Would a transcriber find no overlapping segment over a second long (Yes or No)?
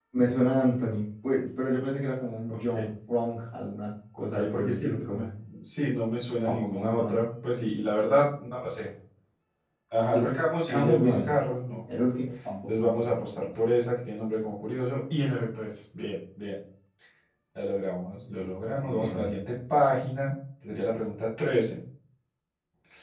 No